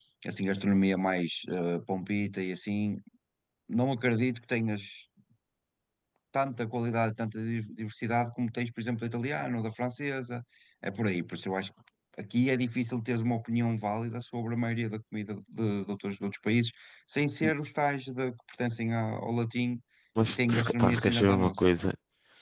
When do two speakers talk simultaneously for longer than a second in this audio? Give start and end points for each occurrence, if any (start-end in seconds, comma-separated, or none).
20.3-21.6